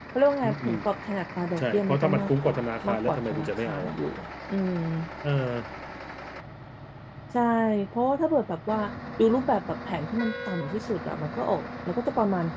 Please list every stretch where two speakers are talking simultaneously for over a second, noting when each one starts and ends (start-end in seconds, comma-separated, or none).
1.6-3.9